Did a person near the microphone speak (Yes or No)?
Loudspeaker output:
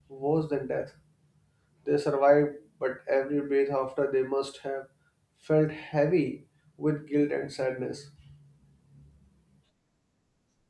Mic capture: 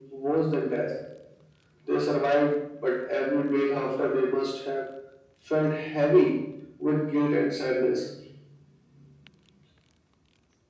No